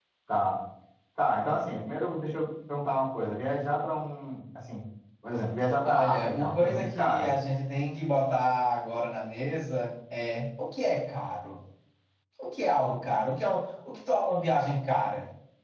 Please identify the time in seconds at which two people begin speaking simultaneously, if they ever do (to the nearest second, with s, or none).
6 s